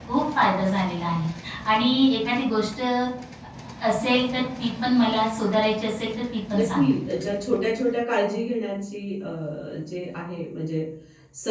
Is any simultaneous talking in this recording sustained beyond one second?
No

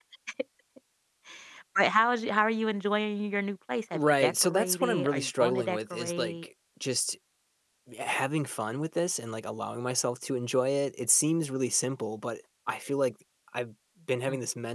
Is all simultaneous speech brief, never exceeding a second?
No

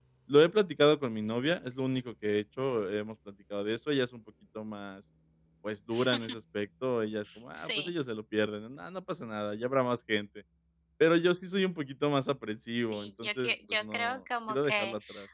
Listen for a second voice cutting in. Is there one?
Yes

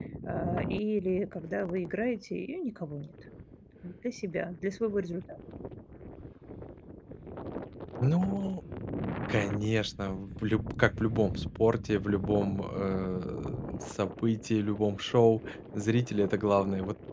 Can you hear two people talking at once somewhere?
No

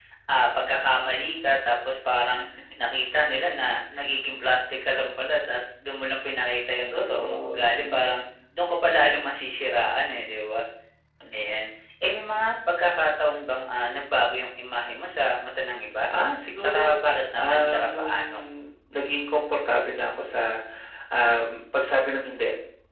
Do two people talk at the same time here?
Yes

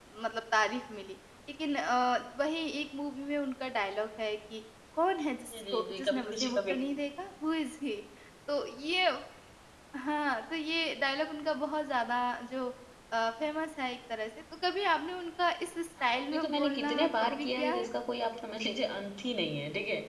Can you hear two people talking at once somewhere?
Yes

